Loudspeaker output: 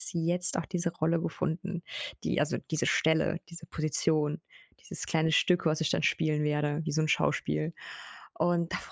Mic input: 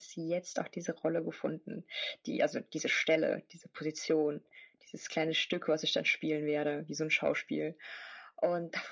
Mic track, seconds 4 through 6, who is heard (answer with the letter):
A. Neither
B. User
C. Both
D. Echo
D